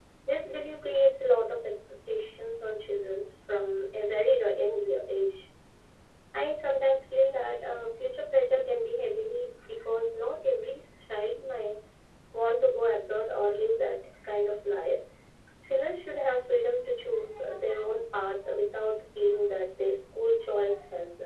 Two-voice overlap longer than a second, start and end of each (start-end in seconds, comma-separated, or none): none